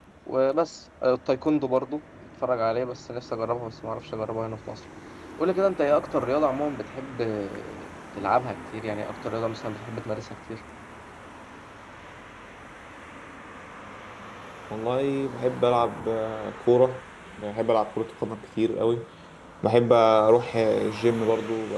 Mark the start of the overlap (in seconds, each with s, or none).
none